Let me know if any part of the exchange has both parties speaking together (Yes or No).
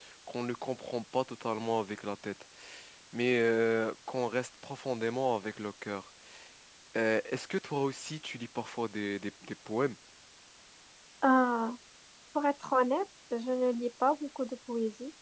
No